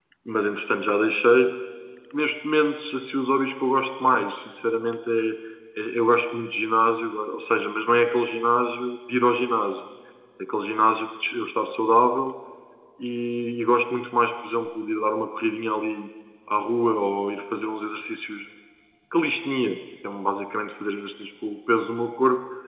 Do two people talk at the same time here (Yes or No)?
No